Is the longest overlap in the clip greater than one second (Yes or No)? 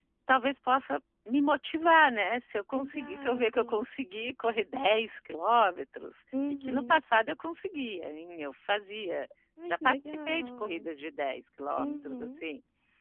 Yes